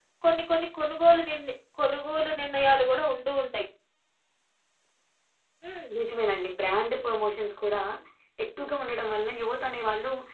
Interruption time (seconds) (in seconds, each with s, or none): none